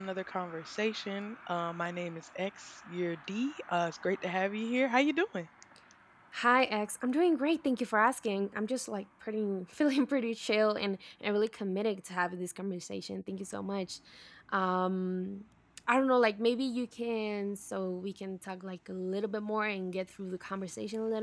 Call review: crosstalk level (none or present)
none